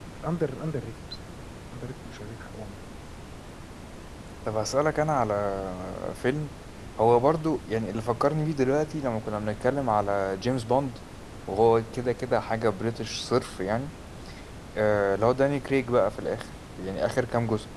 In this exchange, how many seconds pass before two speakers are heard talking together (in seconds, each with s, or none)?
none